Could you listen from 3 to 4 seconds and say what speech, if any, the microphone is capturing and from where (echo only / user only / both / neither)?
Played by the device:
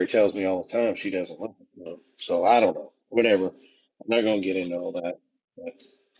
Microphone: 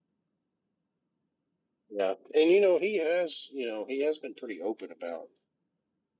user only